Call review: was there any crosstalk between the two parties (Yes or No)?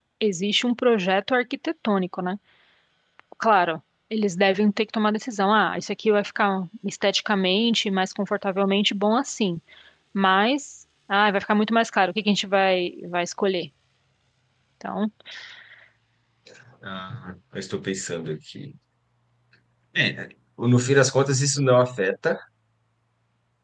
No